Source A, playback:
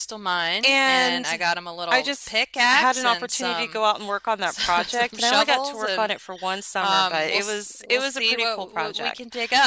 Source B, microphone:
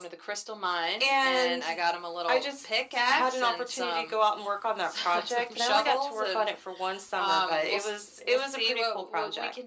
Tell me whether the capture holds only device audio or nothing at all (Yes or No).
Yes